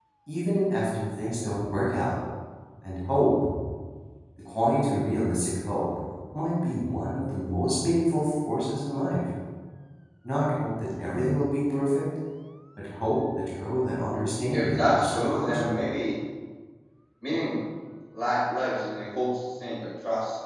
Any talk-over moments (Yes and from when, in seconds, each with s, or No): Yes, from 14.5 s